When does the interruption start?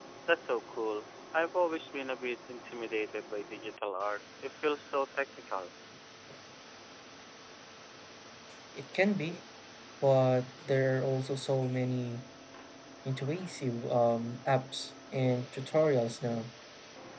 none

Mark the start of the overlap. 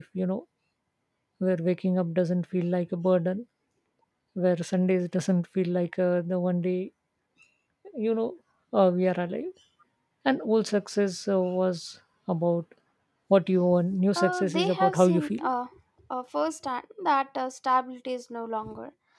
14.2 s

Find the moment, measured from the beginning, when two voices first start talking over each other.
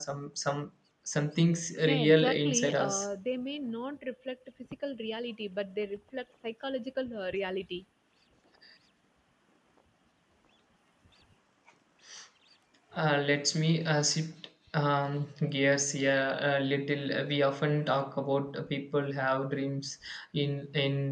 1.8 s

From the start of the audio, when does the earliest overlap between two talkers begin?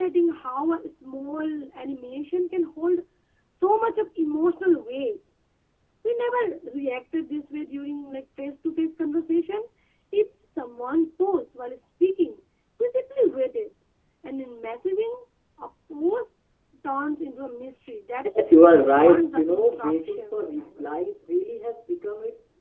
18.8 s

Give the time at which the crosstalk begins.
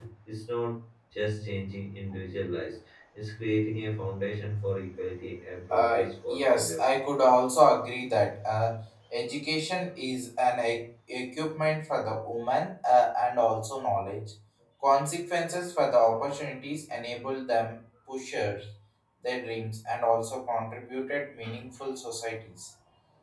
5.7 s

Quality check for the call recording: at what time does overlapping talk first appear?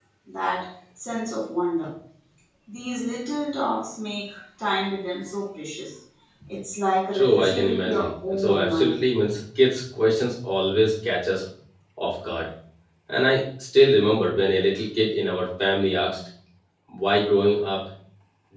7.1 s

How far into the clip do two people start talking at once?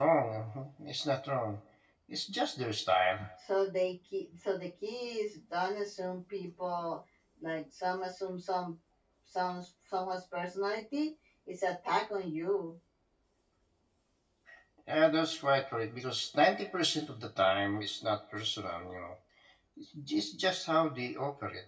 none

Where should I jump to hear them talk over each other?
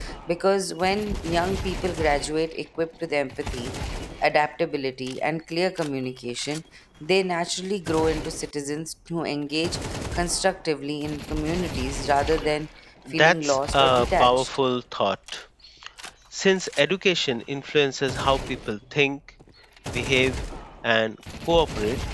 13.2 s

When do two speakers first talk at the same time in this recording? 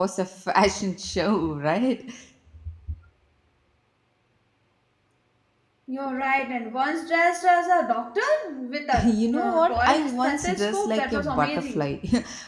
8.9 s

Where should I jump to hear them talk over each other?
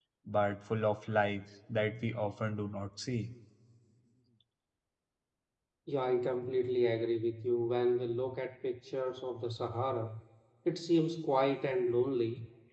none

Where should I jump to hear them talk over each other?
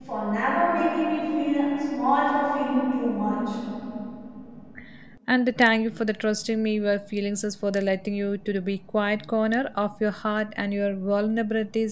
none

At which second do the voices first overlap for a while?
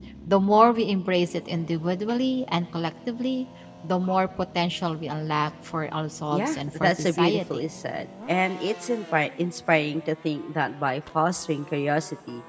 6.3 s

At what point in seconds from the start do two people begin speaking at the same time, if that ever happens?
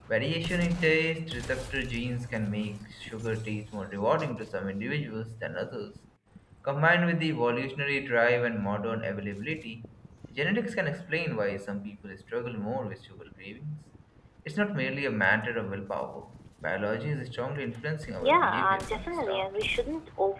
18.2 s

